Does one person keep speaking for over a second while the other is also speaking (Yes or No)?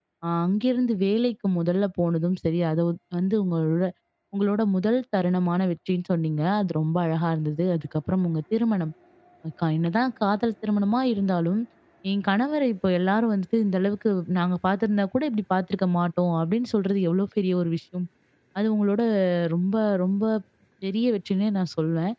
No